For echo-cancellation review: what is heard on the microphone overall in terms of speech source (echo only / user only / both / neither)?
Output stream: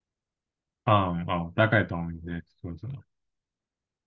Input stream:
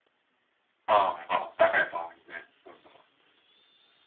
echo only